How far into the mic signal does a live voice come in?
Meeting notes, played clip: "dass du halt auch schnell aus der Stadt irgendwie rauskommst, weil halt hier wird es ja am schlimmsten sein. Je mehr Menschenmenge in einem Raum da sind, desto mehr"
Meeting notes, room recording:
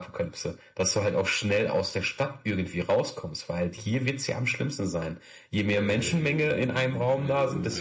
6 s

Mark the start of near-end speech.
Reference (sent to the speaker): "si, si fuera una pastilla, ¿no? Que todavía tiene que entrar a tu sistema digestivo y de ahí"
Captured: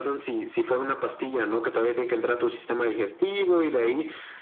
none

